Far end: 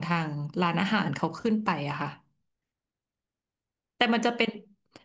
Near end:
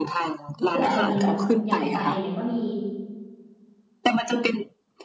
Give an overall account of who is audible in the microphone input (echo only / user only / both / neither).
both